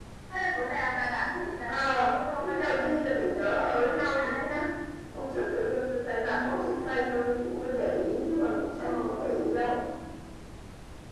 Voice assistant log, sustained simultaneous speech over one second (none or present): present